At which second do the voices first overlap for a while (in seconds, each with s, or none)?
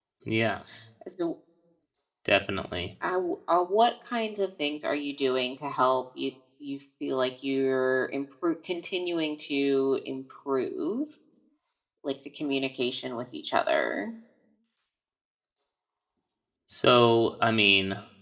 none